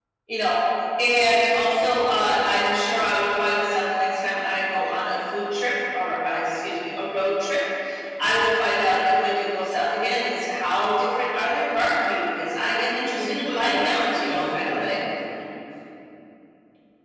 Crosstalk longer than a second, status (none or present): present